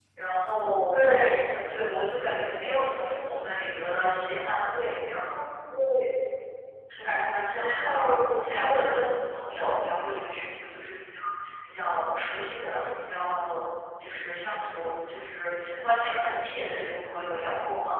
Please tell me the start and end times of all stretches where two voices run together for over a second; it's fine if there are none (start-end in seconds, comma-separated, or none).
7.5-8.9